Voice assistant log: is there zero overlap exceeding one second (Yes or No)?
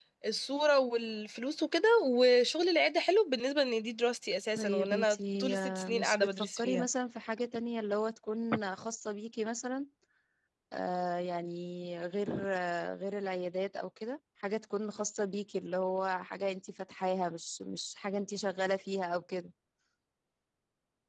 No